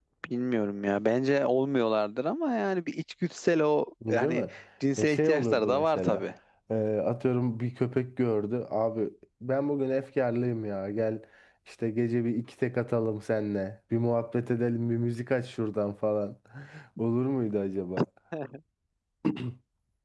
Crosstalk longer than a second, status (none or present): present